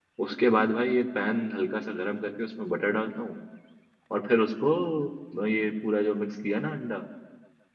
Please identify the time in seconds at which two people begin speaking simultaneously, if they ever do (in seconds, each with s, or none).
none